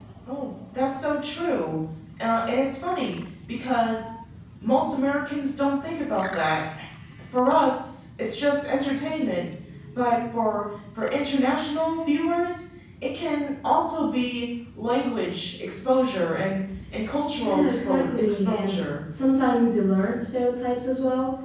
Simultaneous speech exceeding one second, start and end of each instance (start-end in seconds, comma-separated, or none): 17.4-18.9